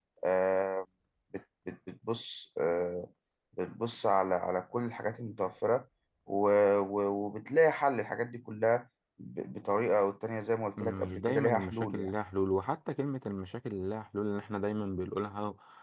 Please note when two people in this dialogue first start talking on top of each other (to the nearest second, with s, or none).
11 s